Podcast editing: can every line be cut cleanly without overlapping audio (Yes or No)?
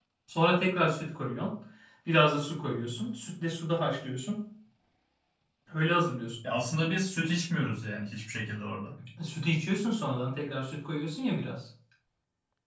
Yes